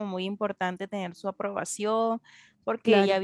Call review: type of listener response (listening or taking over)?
listening